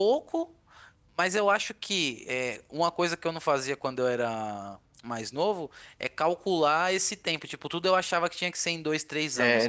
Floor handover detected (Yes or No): No